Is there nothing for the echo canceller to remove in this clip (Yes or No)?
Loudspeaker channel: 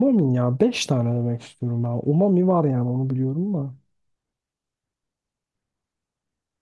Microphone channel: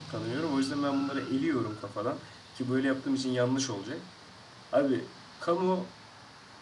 Yes